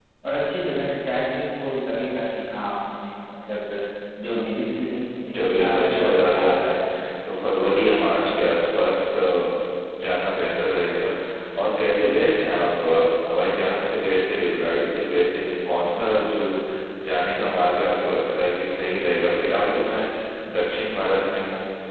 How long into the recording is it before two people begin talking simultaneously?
5.3 s

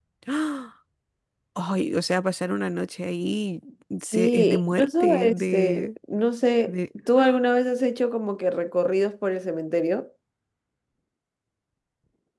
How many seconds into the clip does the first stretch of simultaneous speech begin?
4.1 s

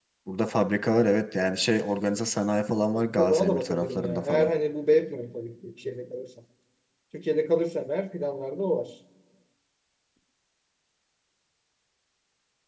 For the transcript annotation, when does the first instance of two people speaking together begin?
3.2 s

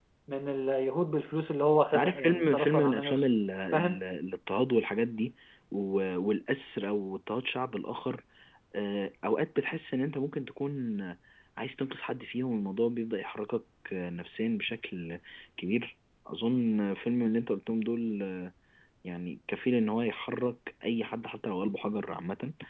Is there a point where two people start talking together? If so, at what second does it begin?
1.9 s

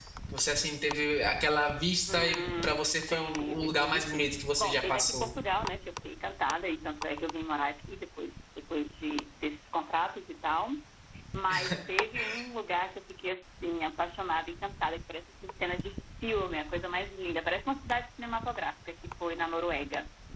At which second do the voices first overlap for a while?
2.1 s

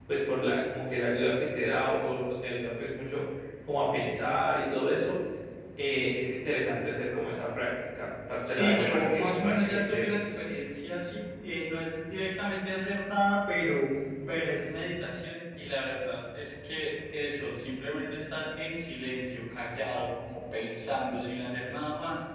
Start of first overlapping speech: 8.4 s

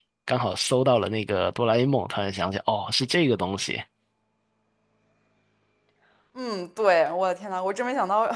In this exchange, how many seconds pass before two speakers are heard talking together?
none

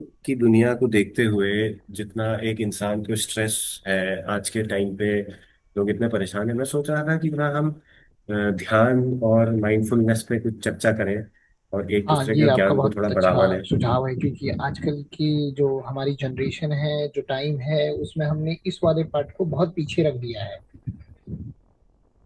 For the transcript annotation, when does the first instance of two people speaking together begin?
12.1 s

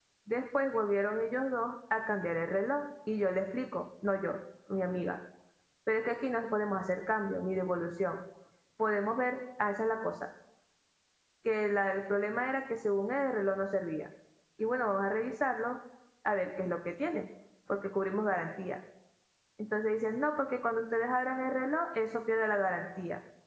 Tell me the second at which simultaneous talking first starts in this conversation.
none

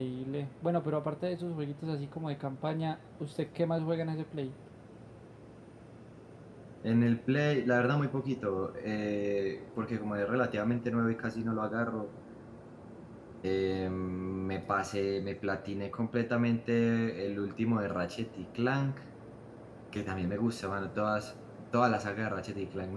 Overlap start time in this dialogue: none

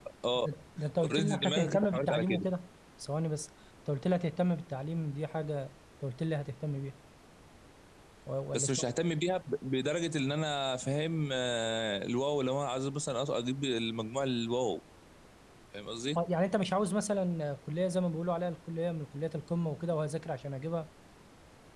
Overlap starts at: 1.0 s

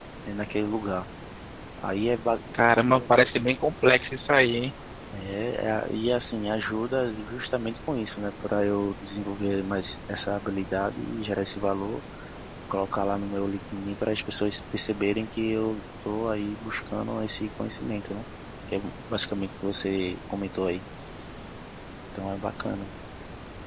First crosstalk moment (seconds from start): none

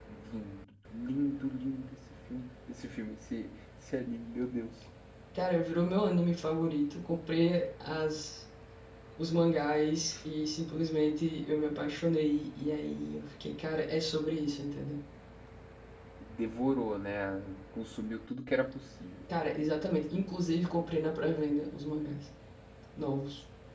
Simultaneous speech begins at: none

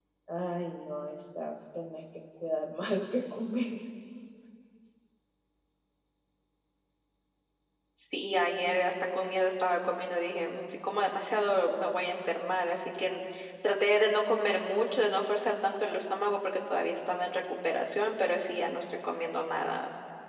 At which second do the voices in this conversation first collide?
none

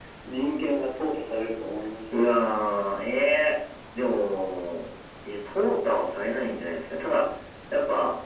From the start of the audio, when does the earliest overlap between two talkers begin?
none

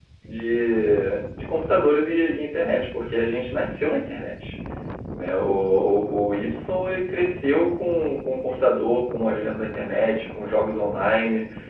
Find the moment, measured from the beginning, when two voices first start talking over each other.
none

